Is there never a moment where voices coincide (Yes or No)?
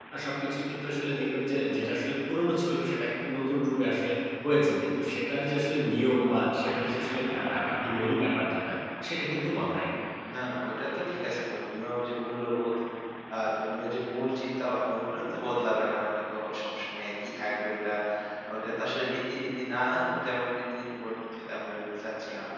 Yes